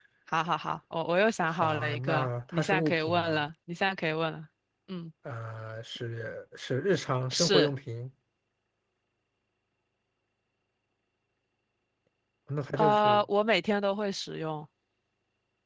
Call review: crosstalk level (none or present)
present